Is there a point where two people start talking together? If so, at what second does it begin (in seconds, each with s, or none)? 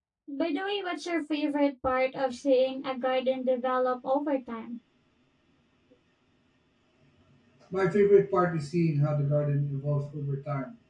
none